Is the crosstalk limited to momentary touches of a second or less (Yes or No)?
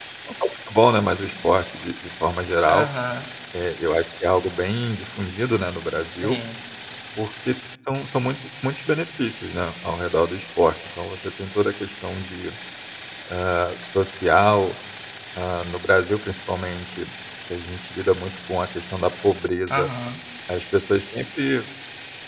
Yes